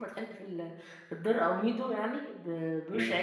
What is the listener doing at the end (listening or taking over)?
listening